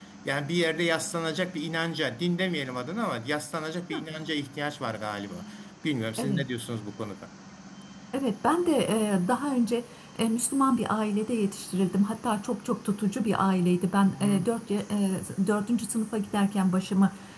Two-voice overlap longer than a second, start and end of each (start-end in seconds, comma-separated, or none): none